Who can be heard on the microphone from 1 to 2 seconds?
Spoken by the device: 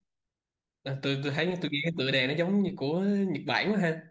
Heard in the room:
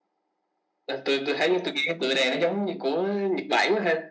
echo only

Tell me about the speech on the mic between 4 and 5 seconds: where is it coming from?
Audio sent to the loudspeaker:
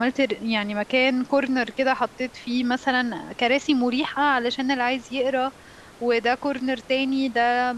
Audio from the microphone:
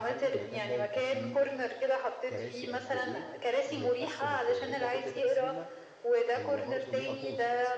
both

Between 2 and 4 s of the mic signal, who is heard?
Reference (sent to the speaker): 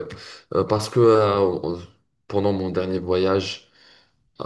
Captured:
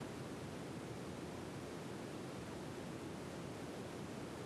neither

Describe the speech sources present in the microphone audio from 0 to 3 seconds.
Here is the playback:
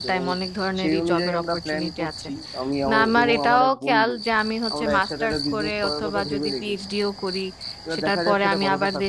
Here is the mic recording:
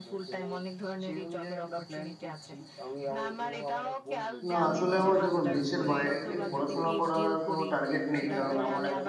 echo only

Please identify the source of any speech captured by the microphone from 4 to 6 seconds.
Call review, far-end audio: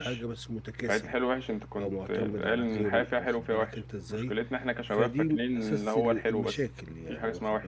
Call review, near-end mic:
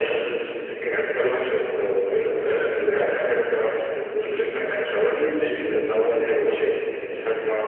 echo only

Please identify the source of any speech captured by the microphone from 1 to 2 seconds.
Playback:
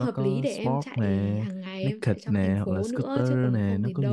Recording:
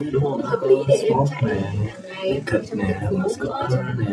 echo only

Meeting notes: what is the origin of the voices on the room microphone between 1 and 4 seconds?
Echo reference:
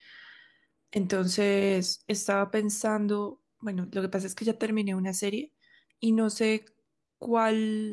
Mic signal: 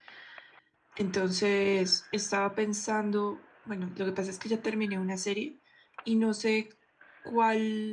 echo only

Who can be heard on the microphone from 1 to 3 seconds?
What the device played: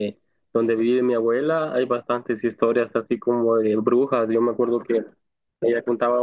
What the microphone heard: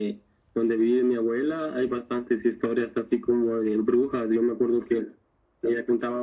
echo only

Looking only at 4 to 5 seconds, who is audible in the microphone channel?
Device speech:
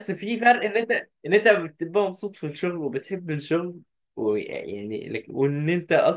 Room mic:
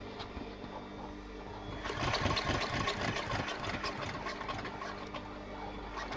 neither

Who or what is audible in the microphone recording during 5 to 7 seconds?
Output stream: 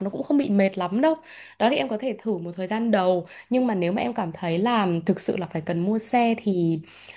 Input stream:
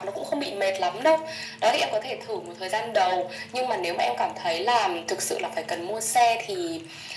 echo only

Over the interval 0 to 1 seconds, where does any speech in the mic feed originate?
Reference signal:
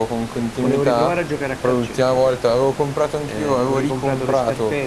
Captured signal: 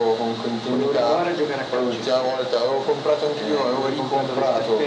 echo only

